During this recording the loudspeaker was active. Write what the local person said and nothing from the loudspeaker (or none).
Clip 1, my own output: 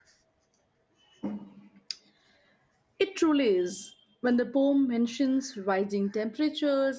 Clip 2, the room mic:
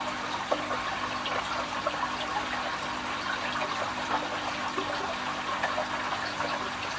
none